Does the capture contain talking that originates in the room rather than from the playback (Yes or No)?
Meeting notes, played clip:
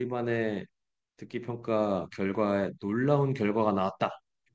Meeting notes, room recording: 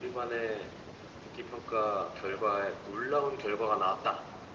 No